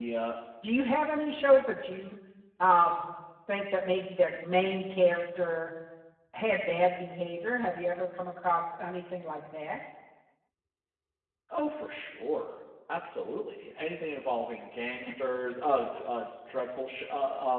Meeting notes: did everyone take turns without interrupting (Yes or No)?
Yes